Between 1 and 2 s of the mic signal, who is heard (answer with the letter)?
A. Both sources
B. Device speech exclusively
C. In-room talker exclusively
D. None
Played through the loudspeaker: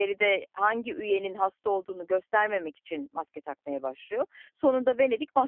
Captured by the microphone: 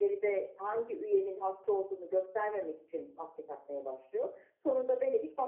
B